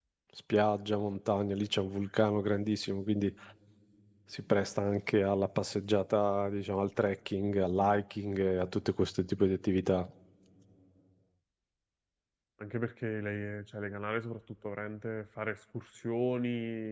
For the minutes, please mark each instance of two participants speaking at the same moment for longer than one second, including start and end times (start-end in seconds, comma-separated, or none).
none